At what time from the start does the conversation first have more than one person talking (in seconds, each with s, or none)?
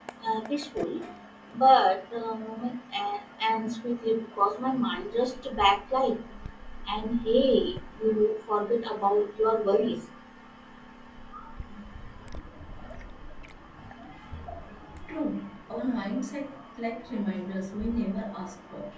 none